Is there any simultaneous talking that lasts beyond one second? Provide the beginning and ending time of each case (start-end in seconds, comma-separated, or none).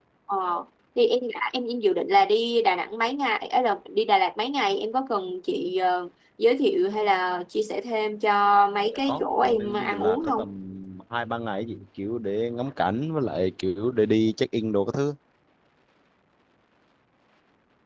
8.9-10.5